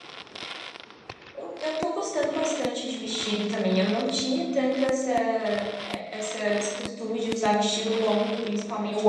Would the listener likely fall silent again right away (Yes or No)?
Yes